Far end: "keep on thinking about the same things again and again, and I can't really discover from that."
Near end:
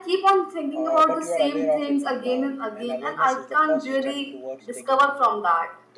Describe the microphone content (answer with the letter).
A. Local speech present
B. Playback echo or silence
A